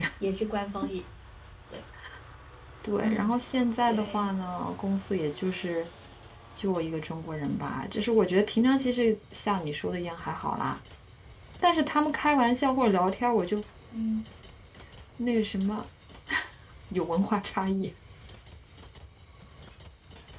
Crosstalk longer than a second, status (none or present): none